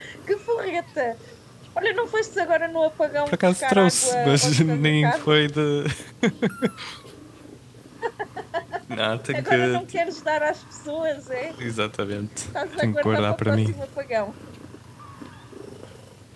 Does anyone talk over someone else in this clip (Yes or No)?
Yes